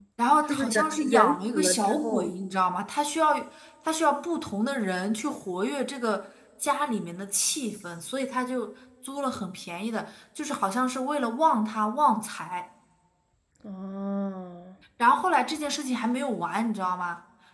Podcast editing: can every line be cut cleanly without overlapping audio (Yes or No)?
No